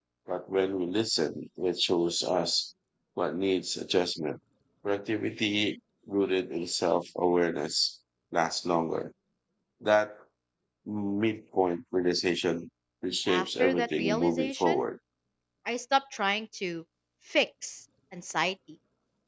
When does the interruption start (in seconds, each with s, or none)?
13.3 s